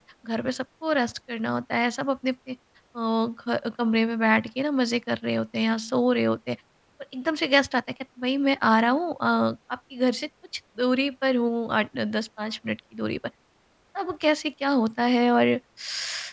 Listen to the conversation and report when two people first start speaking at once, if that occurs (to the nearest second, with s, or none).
none